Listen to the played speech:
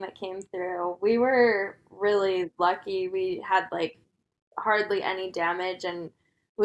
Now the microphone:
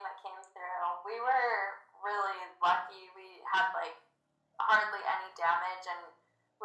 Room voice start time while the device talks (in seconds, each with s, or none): none